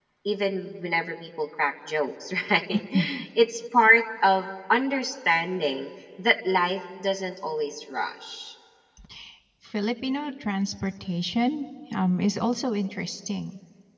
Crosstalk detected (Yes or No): No